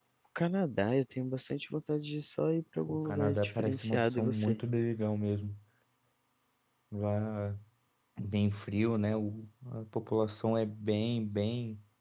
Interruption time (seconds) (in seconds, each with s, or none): 2.9 s